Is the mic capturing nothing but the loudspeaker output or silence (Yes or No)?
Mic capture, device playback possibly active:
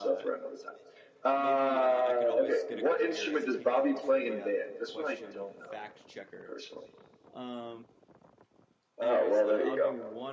No